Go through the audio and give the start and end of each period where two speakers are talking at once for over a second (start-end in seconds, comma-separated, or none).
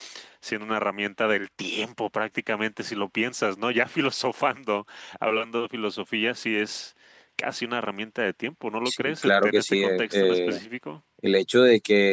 8.8-10.6